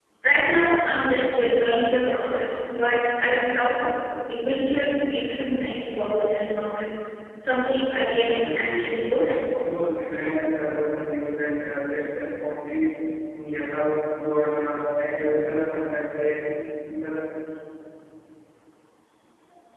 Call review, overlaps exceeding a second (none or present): present